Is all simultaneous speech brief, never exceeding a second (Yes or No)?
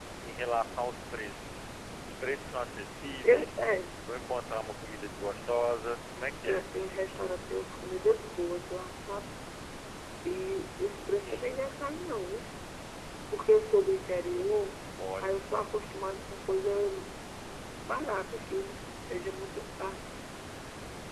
Yes